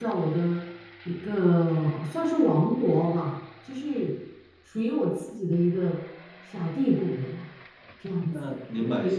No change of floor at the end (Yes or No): No